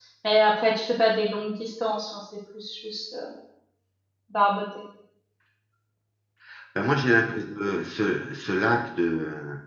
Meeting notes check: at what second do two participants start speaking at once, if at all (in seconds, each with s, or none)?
none